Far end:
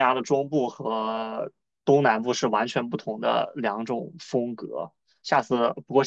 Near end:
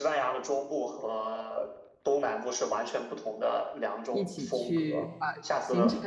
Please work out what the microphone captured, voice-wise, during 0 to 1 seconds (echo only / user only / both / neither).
echo only